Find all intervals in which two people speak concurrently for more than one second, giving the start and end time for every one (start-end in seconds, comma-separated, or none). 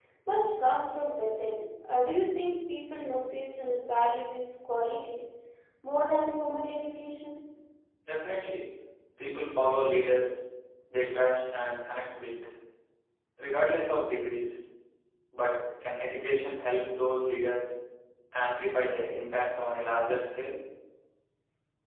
none